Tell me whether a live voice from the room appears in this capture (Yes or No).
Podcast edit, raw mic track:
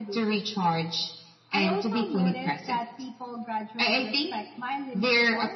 No